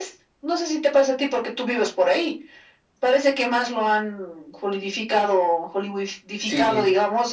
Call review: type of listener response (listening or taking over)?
listening